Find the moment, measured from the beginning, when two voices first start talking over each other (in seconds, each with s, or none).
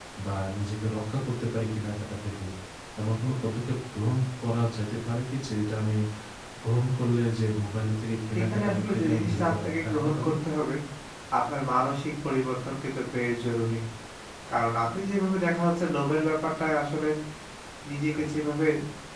8.4 s